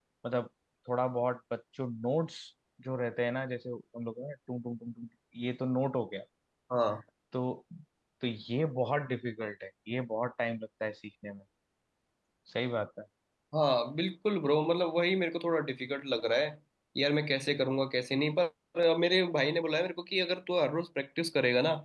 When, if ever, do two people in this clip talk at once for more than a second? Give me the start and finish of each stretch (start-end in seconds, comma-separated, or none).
none